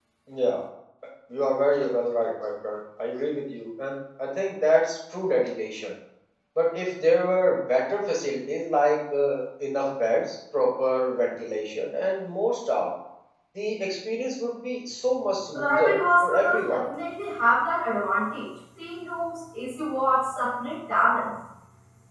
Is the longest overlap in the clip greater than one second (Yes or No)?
Yes